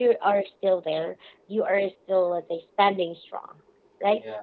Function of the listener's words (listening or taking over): listening